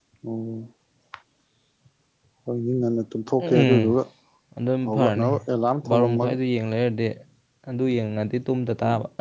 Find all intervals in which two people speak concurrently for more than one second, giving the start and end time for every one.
none

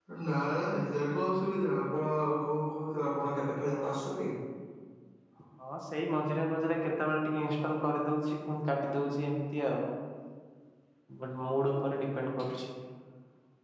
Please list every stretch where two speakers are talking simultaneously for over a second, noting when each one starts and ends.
none

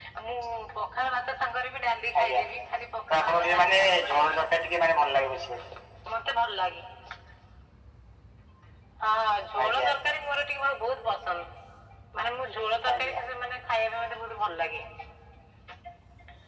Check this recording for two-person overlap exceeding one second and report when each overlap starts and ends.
3.2-4.4

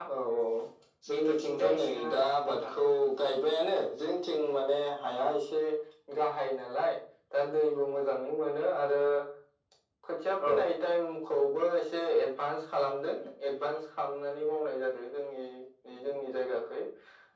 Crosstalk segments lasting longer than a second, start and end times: 1.1-2.7

